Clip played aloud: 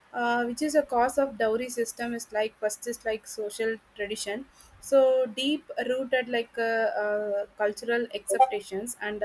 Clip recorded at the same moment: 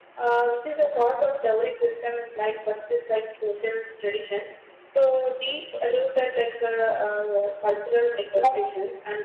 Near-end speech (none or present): none